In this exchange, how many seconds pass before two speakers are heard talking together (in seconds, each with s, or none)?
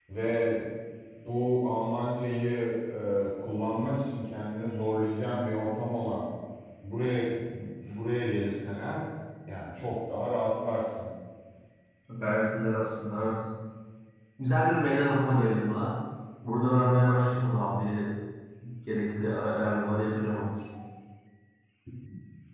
none